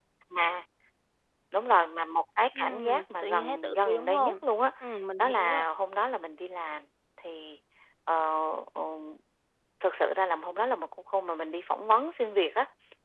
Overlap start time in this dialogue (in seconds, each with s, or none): 2.6 s